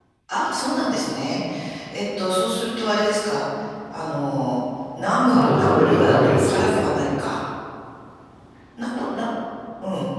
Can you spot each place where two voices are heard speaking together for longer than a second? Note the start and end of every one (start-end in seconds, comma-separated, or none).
5.3-6.9